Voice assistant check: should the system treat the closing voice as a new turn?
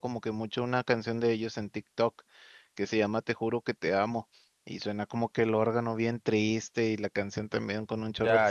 Yes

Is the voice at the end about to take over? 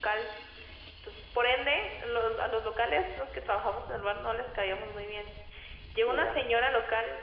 No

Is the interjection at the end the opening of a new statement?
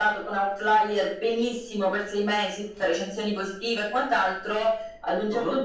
No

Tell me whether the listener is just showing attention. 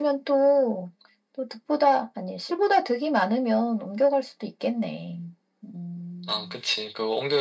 No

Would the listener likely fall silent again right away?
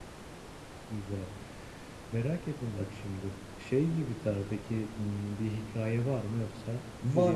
No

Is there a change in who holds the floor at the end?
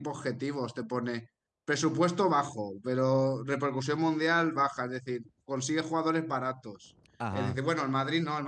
No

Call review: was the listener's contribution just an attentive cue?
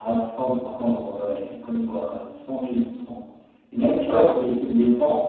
Yes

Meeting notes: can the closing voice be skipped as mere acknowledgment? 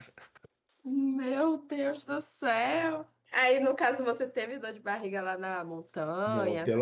No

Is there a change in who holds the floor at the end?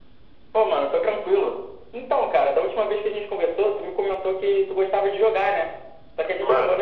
Yes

